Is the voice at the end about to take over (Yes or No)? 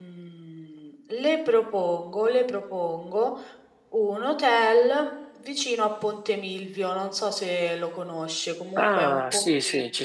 Yes